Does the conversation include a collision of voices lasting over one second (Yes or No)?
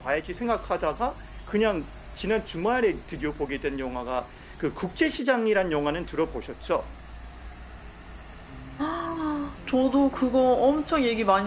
No